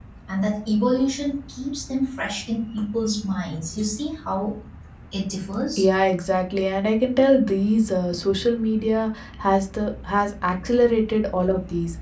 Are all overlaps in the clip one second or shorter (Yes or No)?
Yes